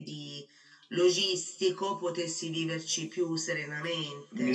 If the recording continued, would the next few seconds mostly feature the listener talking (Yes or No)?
Yes